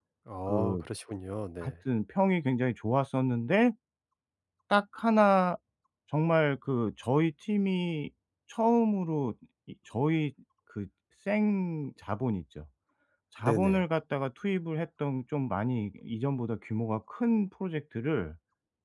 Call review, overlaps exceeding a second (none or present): none